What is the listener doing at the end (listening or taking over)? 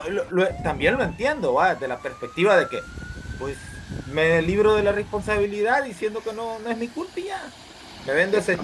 listening